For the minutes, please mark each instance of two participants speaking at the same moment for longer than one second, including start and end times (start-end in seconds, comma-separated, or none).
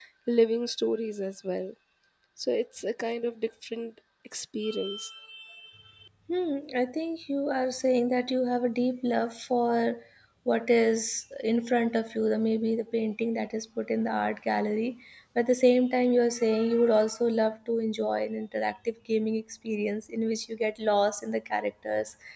none